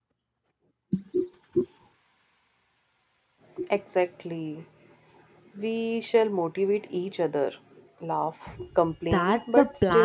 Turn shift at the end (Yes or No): Yes